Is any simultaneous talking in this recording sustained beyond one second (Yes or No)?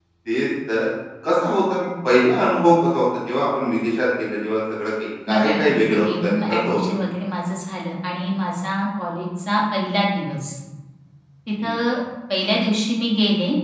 Yes